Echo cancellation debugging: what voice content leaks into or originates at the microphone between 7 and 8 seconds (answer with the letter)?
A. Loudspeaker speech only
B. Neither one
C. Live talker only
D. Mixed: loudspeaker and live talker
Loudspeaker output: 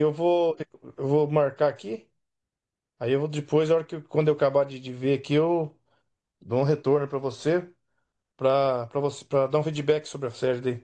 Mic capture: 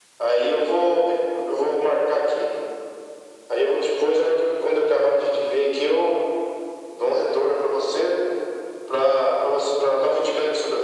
A